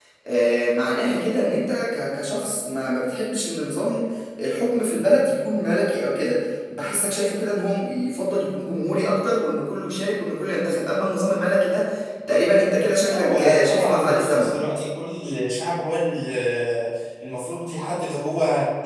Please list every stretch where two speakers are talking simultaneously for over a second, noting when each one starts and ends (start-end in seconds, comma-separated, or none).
13.0-14.5